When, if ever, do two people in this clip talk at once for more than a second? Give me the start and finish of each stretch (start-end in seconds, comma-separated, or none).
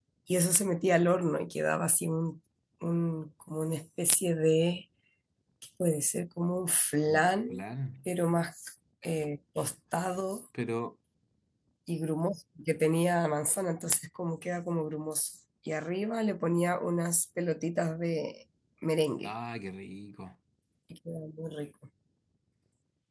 none